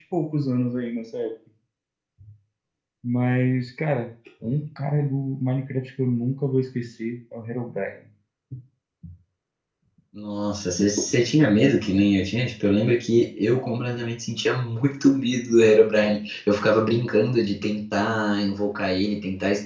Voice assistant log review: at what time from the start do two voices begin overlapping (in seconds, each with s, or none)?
none